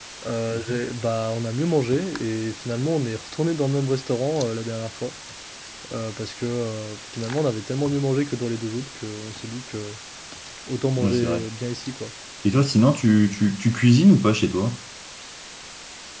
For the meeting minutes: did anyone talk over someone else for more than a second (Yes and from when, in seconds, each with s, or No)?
No